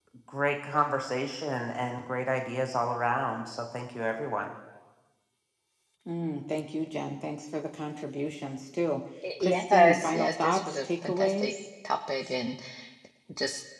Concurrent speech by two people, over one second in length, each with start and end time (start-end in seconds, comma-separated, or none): 9.4-11.5